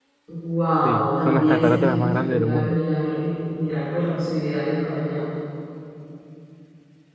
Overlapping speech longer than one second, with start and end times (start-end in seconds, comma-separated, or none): 0.7-2.8